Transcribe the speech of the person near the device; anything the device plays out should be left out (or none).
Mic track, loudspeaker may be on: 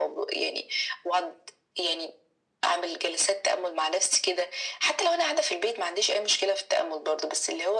none